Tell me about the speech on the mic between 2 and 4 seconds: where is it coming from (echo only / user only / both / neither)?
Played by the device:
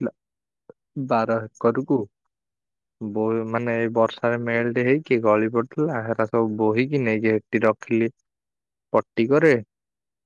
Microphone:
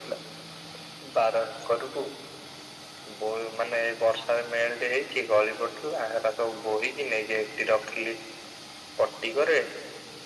echo only